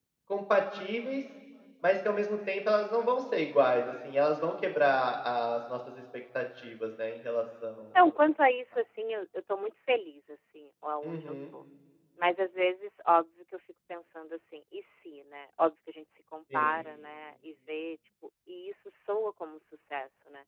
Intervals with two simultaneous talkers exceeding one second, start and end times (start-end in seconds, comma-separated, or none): none